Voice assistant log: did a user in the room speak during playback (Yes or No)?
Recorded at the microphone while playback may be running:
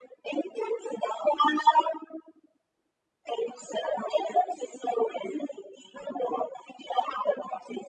No